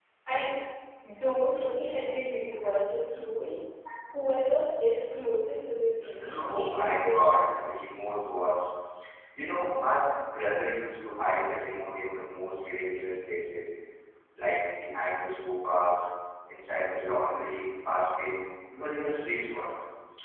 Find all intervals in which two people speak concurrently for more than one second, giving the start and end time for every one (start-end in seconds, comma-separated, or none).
6.4-7.7